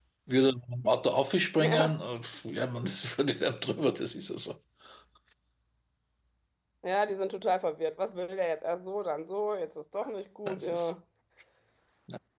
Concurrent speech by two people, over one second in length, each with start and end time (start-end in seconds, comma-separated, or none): none